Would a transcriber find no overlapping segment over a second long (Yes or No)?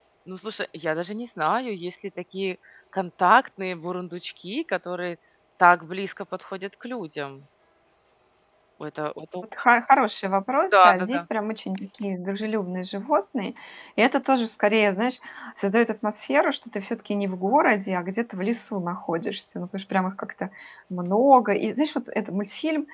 Yes